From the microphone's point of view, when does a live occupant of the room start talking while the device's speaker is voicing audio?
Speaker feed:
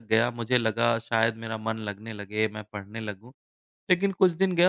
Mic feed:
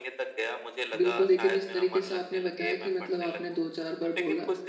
1 s

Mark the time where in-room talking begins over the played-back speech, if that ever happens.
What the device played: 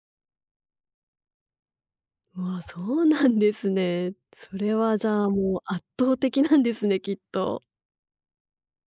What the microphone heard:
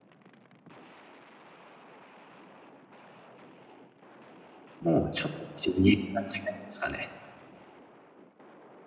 5 s

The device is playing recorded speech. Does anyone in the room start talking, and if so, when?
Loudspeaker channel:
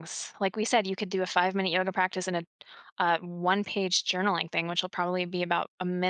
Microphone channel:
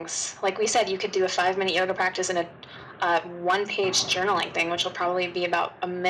none

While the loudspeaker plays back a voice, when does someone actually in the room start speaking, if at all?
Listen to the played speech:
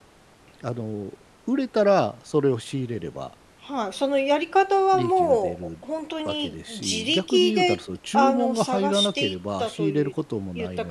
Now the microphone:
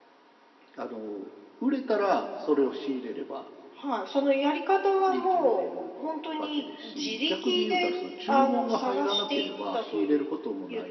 none

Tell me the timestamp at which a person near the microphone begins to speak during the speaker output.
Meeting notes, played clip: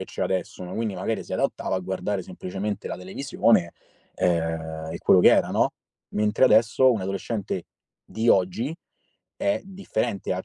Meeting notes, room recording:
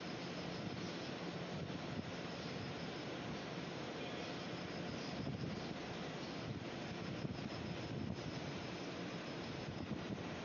none

